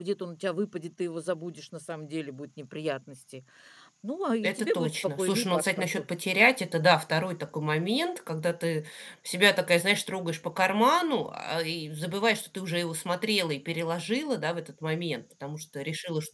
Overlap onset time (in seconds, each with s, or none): 4.4 s